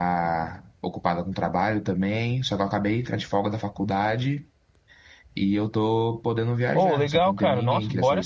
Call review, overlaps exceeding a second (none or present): present